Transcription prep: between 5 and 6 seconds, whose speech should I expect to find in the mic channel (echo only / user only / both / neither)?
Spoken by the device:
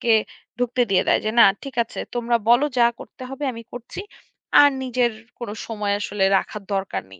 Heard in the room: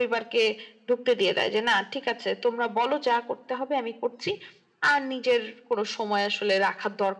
echo only